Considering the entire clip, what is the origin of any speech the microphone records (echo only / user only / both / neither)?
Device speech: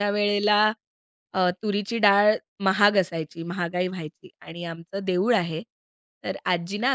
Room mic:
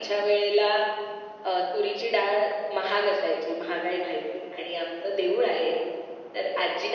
echo only